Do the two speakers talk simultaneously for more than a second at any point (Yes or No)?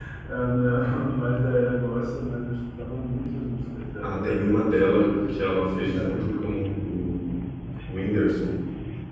Yes